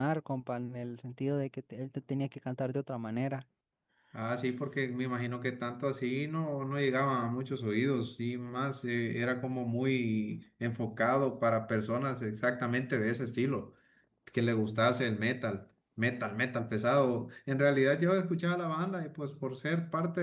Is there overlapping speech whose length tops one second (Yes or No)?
No